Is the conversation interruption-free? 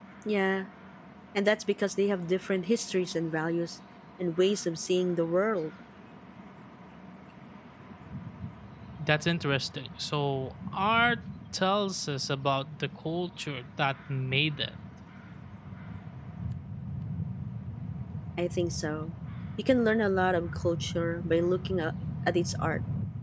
Yes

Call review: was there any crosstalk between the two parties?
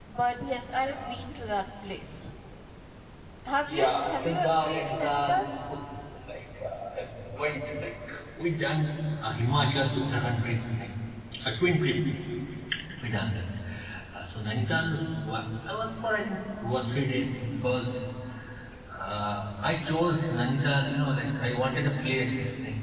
Yes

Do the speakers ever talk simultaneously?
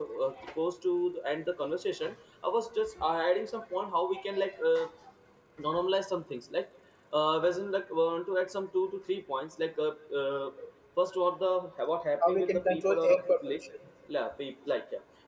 Yes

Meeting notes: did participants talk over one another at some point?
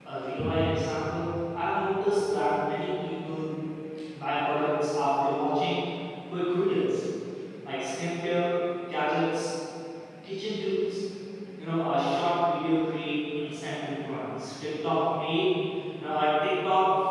No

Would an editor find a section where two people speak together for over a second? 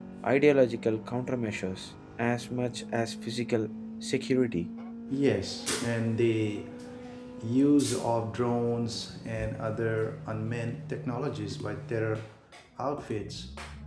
No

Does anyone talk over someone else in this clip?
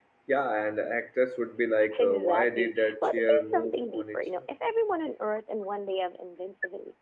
Yes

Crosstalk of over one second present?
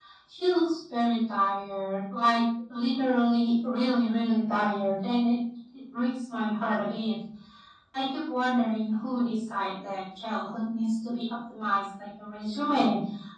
No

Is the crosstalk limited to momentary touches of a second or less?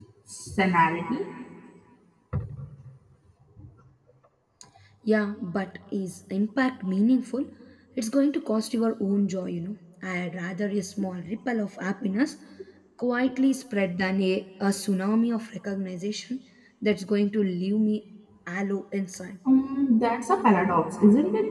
Yes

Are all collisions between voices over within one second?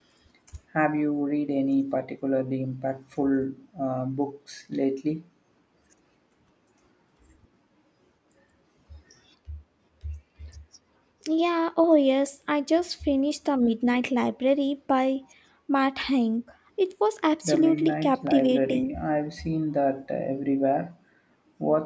No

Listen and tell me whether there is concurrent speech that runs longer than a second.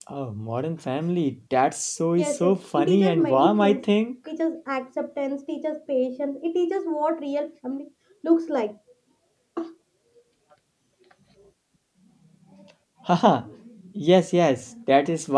Yes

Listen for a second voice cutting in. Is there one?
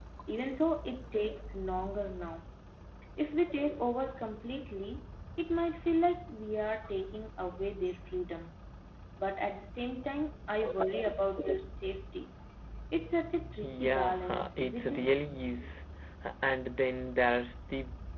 Yes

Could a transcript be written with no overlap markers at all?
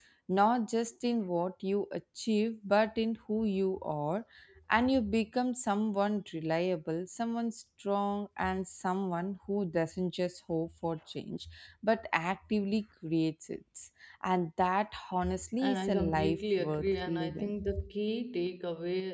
No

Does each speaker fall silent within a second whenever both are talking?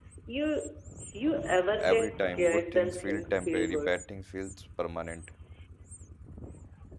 No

